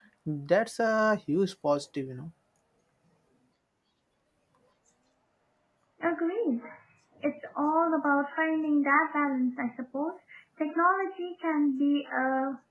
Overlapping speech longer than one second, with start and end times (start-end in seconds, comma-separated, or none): none